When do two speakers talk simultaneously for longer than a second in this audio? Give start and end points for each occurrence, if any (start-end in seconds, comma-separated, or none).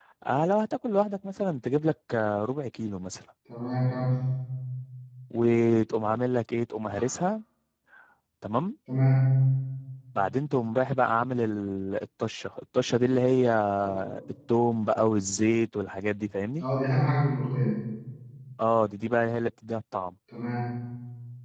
none